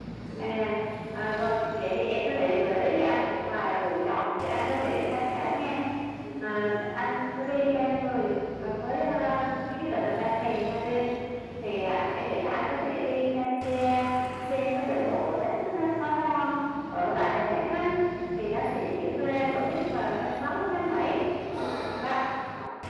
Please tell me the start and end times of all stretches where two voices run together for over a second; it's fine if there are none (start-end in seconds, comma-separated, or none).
none